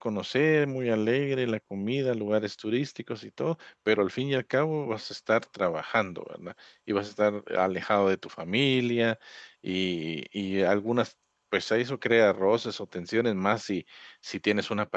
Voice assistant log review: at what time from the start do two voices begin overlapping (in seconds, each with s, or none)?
none